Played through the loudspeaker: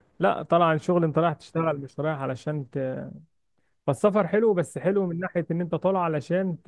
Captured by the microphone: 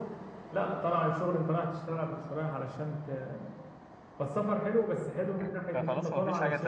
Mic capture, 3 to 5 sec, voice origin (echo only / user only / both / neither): echo only